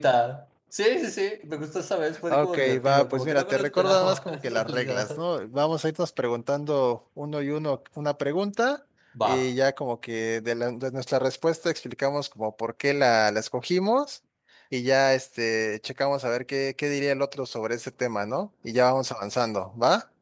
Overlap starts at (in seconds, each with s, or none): 2.3 s